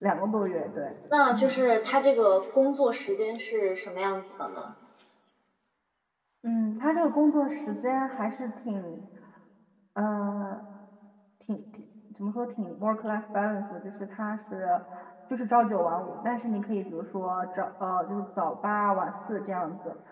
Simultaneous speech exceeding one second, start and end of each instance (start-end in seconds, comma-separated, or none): none